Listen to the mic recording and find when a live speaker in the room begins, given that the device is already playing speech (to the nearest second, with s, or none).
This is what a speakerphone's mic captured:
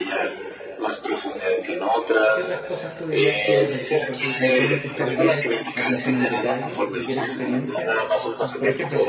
2 s